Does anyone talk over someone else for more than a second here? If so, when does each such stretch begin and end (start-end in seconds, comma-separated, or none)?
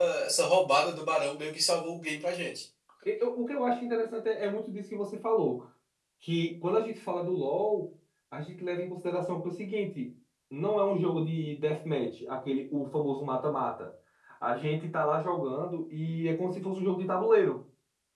none